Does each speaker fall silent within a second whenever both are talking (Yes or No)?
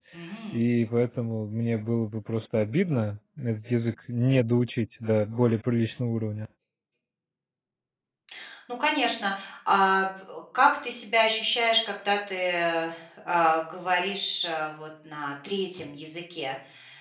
Yes